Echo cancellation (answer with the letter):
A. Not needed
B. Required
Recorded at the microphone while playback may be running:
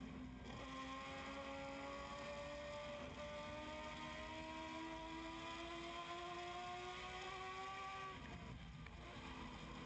A